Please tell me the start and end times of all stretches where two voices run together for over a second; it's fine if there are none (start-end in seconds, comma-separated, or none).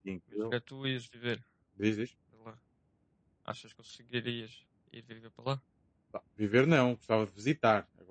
none